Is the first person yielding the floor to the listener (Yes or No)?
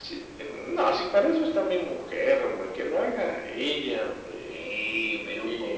Yes